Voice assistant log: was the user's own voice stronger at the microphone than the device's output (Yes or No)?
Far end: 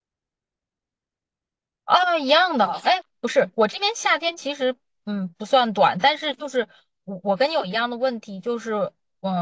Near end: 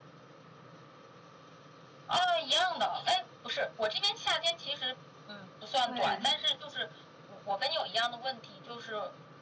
No